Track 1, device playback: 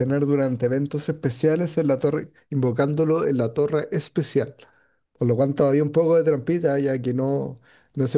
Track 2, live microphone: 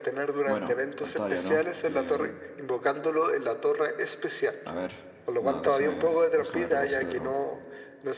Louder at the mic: echo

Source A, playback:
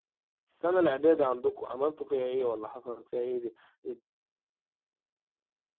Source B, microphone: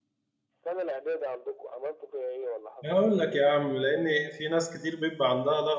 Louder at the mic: user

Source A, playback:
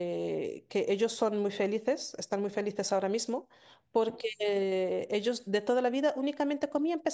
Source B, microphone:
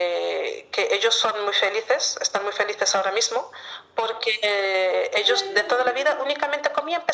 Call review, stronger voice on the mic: echo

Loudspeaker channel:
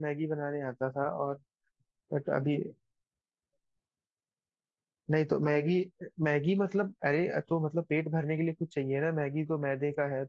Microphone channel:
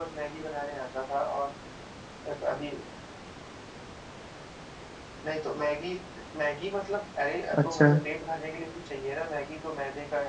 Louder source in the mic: user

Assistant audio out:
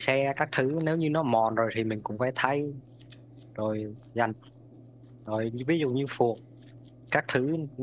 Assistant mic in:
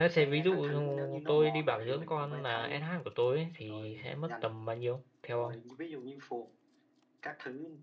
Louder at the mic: user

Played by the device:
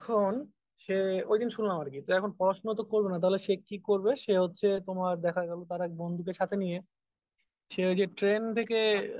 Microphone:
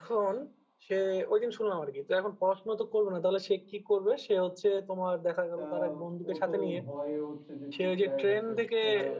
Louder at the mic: echo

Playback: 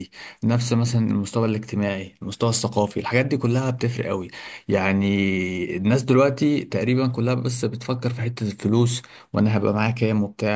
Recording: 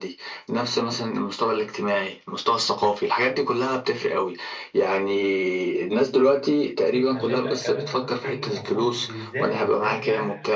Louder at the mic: echo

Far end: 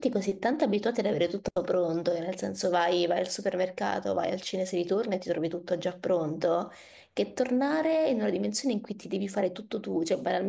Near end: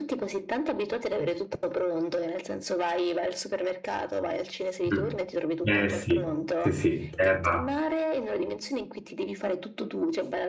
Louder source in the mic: user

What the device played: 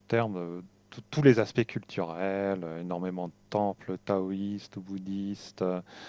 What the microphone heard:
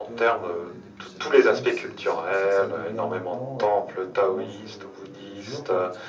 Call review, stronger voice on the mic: echo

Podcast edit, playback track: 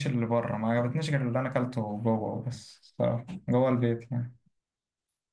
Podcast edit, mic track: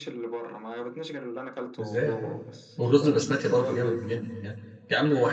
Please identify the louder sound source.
user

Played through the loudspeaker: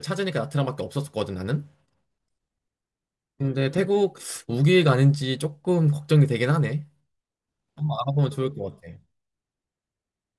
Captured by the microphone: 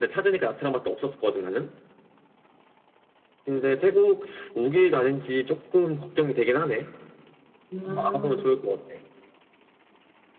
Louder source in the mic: echo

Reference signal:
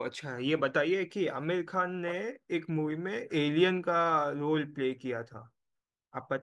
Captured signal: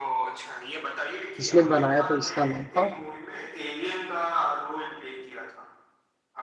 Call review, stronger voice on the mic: user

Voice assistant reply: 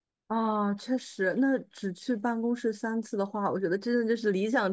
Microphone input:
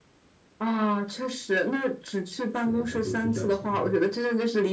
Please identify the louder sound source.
echo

